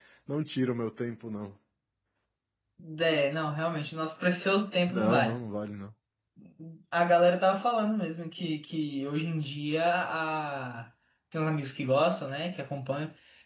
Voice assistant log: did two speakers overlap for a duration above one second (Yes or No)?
No